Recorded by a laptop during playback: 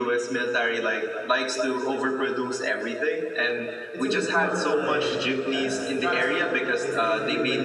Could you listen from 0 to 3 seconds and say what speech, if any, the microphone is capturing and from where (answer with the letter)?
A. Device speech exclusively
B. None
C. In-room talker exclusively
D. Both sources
A